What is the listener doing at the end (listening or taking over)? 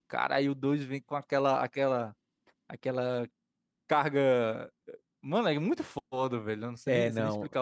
taking over